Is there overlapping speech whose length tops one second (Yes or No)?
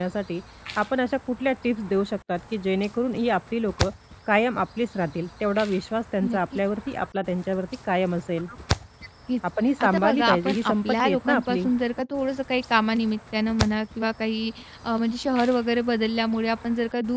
Yes